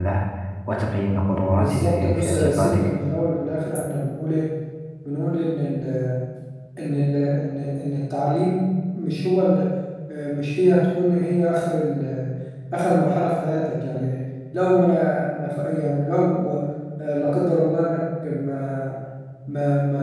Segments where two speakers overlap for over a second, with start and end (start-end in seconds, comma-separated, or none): 1.6-2.9